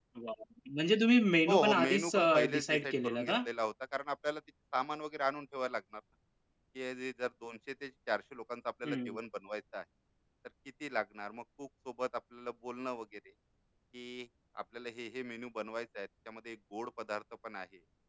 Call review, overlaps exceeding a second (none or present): present